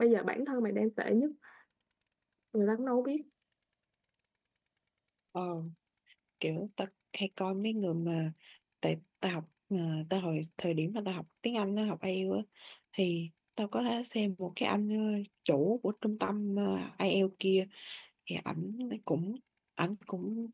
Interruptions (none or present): none